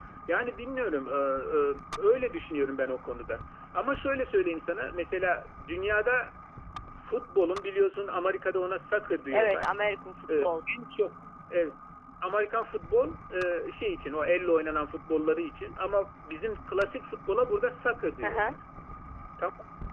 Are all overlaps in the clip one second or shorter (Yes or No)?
Yes